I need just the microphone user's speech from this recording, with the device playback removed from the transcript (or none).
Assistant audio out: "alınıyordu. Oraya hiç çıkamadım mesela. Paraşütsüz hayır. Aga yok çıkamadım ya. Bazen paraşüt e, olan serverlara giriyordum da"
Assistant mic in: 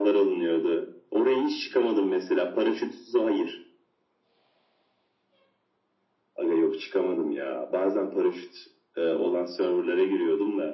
none